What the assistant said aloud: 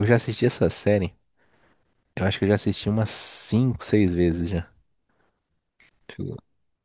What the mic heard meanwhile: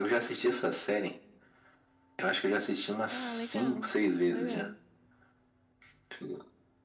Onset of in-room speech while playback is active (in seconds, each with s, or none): 3.1 s